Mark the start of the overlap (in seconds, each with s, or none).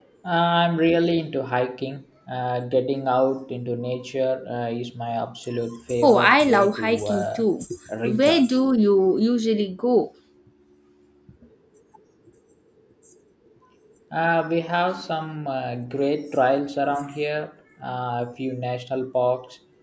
6.0 s